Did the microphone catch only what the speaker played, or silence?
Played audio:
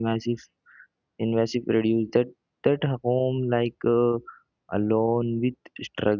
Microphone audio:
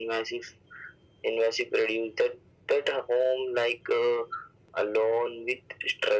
Yes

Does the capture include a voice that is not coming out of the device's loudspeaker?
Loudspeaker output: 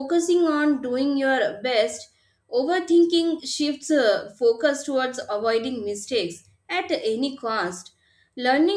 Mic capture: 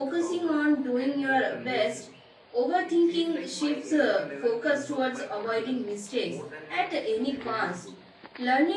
Yes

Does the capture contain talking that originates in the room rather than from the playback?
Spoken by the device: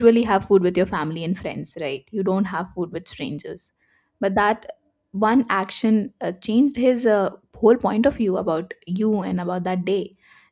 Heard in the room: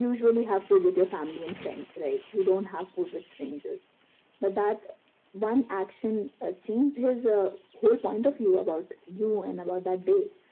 No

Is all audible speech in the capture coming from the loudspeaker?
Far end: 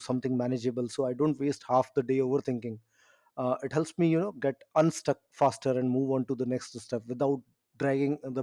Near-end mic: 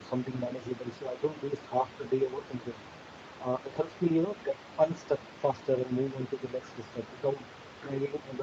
Yes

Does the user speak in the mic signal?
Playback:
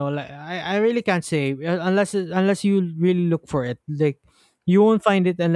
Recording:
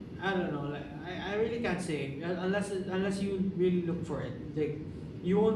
No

